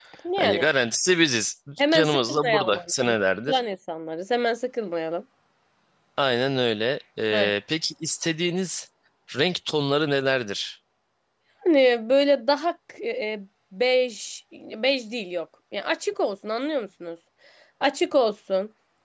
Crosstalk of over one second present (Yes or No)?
Yes